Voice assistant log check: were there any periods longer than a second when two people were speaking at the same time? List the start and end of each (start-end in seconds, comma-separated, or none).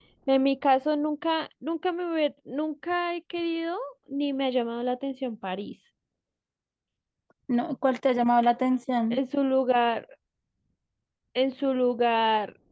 none